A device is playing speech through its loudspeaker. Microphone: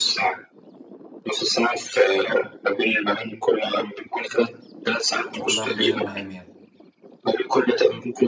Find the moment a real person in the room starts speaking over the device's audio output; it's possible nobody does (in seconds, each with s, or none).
5.3 s